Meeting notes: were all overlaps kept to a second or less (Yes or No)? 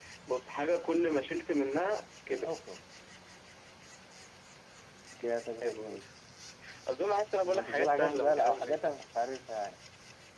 No